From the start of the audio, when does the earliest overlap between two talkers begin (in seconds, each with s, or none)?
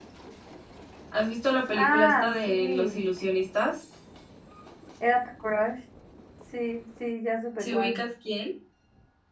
1.7 s